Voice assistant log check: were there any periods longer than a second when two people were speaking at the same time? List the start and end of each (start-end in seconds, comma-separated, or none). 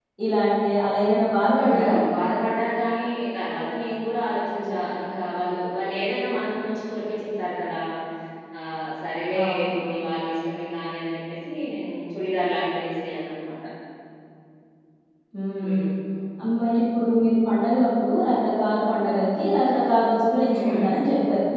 none